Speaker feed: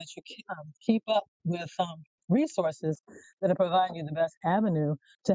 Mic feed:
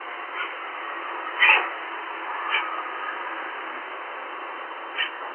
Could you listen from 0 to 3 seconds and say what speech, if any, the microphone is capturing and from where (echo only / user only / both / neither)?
neither